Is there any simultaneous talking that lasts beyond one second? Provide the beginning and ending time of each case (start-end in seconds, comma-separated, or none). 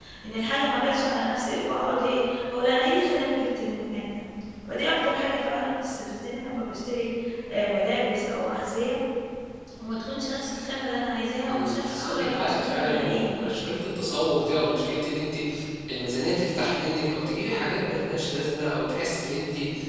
11.5-13.6